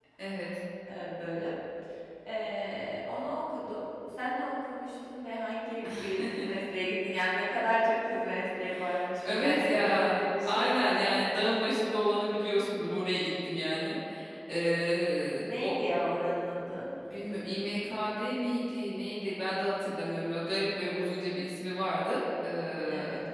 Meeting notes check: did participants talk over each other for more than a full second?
Yes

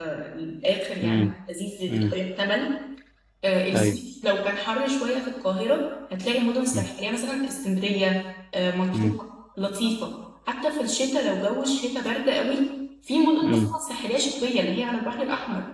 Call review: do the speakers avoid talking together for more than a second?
Yes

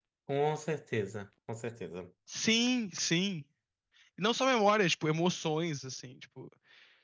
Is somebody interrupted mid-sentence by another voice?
No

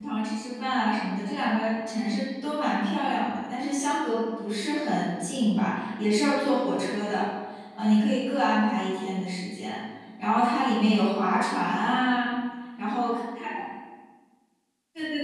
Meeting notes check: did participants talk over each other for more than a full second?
No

